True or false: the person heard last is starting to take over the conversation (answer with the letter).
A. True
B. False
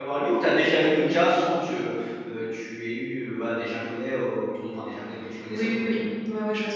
A